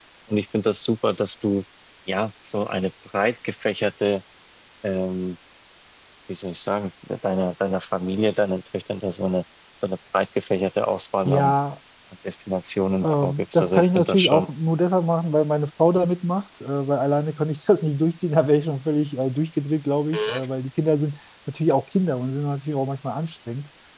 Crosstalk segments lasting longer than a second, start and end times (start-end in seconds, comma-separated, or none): 13.0-14.5